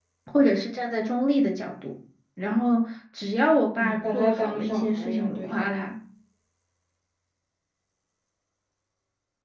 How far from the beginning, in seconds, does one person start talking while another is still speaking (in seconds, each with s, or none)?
3.8 s